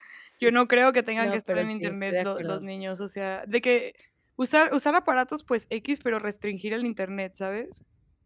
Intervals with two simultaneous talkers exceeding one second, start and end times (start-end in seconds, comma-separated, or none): 1.2-2.7